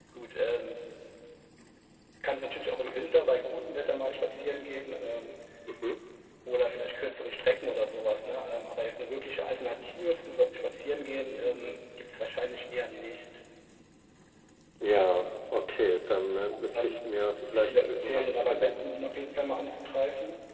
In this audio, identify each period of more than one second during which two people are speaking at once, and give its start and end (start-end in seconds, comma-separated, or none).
17.5-18.9